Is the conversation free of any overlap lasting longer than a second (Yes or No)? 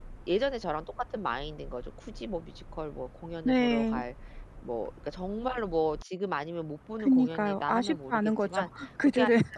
No